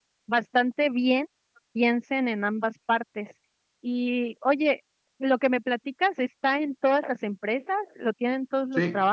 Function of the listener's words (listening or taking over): taking over